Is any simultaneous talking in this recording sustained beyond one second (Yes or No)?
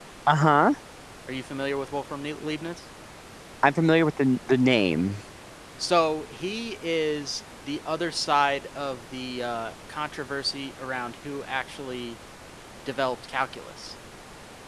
No